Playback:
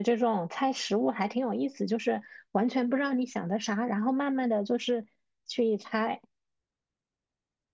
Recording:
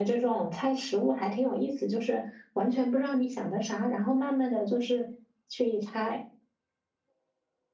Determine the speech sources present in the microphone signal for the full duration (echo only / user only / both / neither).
echo only